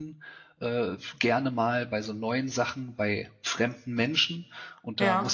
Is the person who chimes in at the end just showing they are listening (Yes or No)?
Yes